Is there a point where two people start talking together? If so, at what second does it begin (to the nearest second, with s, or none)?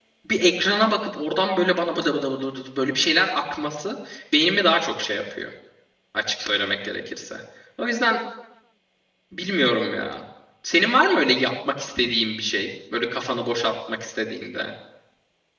none